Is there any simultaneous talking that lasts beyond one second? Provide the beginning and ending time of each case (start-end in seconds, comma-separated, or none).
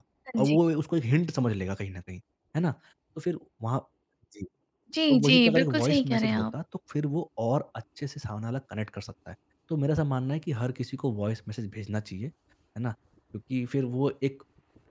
5.1-6.4